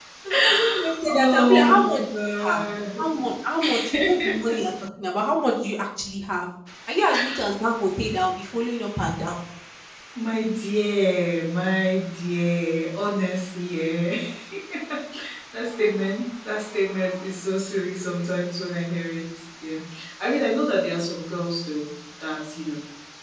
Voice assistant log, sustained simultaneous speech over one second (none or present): present